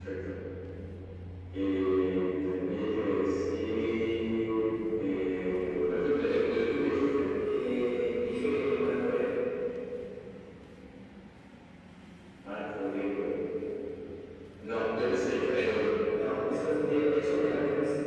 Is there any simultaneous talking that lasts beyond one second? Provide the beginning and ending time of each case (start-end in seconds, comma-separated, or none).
none